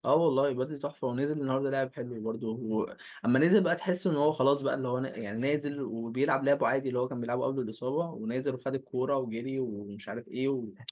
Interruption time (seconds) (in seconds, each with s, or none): none